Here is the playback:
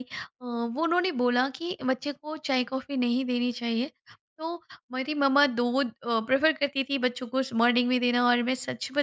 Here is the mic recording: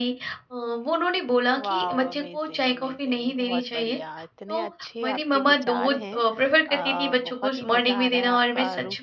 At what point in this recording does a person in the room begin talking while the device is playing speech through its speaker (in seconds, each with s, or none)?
1.6 s